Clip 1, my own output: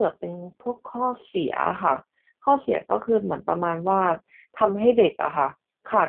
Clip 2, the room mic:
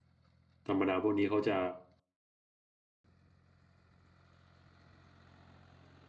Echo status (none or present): none